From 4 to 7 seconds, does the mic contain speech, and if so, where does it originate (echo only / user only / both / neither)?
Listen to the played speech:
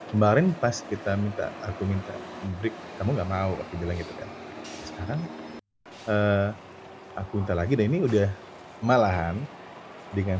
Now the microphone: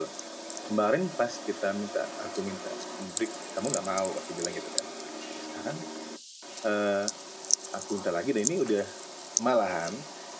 echo only